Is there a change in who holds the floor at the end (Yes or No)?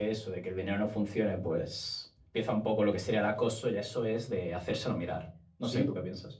Yes